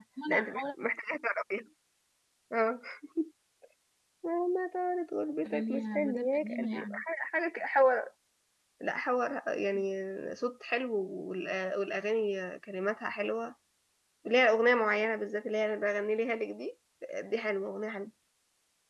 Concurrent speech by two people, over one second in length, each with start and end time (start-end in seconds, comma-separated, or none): 5.5-6.8